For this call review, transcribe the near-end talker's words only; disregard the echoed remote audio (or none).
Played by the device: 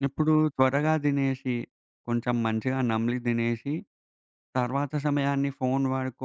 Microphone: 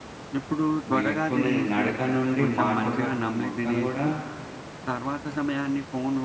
నేర్చుకునేది నడక నుండి మాటల వరకు మొత్తం గూడా